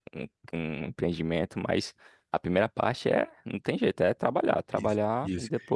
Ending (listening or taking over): taking over